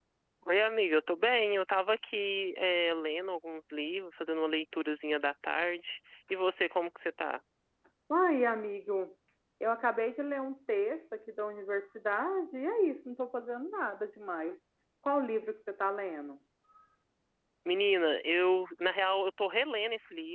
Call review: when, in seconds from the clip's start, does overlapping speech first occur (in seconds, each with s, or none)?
none